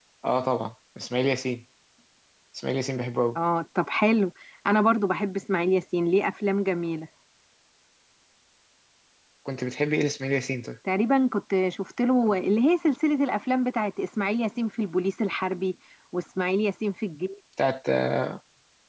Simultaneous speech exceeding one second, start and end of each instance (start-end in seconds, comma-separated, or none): none